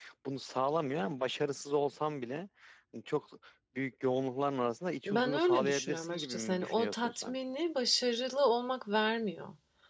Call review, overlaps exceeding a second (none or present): present